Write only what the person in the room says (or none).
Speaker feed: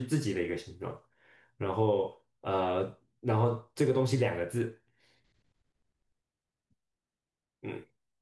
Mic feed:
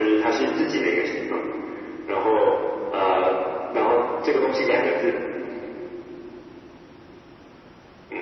none